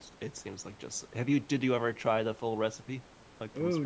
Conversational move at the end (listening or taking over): taking over